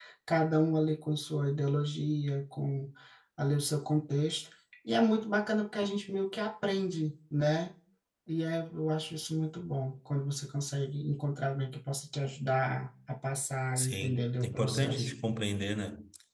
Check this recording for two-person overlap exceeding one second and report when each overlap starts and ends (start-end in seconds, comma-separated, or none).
13.8-15.1